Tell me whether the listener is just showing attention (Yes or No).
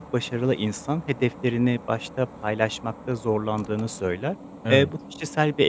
Yes